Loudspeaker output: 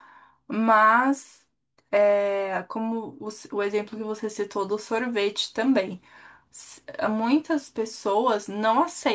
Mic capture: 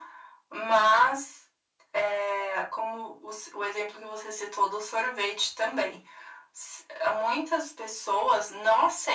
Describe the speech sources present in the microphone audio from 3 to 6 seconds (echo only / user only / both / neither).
echo only